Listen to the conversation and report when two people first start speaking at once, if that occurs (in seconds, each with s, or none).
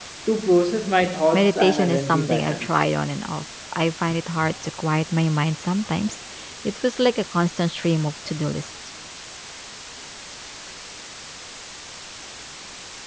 1.3 s